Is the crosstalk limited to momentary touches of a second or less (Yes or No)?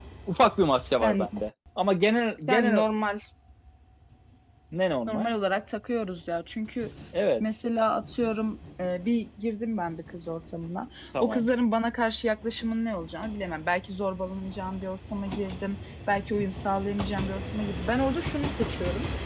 Yes